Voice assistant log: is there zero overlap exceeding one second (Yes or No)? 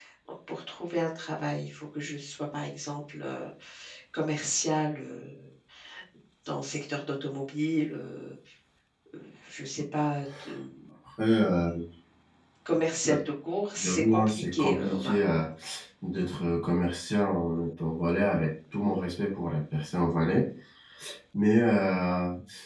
No